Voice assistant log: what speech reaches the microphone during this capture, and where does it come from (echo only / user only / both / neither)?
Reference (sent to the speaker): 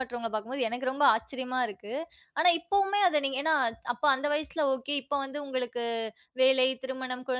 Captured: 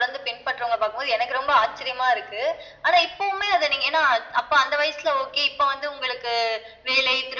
echo only